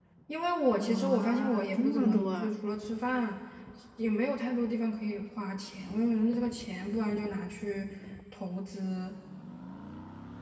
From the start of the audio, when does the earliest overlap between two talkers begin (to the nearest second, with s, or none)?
1 s